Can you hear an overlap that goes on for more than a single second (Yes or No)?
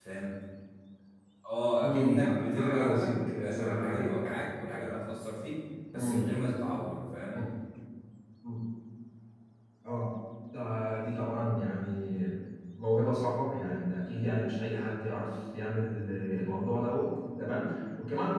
Yes